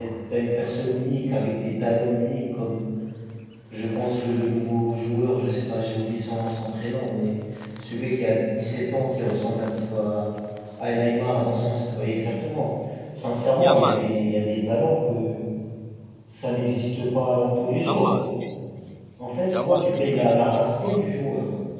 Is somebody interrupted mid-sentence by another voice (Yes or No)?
Yes